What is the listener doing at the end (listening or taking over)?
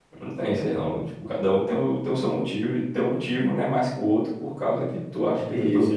taking over